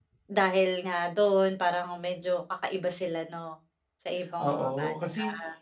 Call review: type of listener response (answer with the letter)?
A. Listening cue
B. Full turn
B